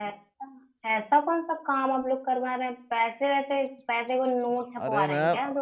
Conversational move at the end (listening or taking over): taking over